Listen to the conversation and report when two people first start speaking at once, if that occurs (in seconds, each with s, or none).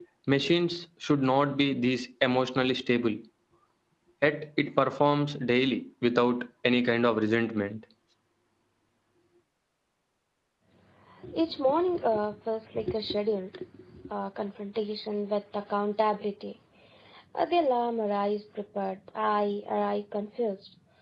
none